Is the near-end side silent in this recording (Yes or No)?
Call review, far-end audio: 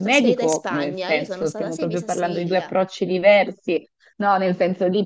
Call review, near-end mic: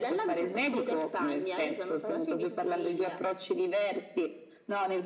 Yes